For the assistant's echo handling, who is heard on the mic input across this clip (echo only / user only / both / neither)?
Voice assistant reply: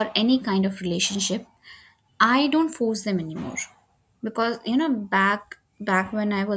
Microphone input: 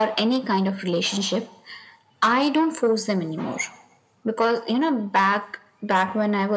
echo only